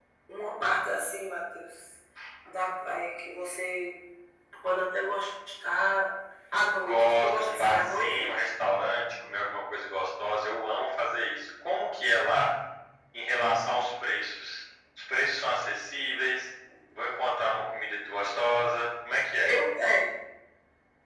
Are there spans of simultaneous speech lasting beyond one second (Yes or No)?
Yes